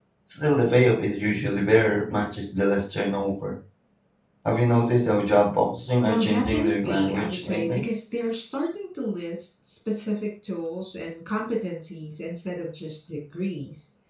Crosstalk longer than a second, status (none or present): present